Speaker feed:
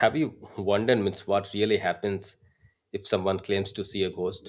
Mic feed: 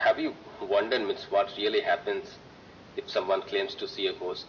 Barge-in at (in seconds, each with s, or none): none